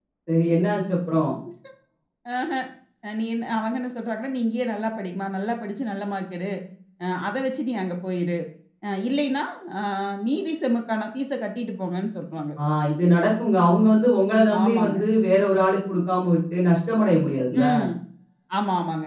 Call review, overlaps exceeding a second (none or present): none